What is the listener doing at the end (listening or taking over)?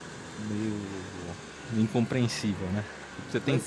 listening